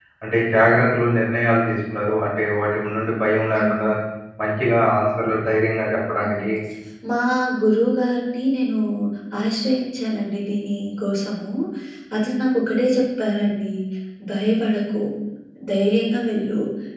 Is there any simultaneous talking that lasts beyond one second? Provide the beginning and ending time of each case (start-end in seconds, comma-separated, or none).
none